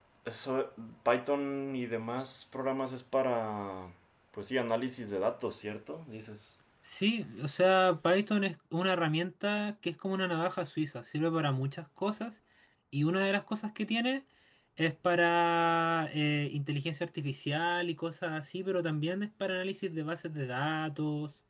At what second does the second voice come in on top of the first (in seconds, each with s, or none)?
none